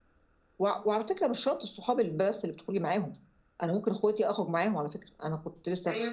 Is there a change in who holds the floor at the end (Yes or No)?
No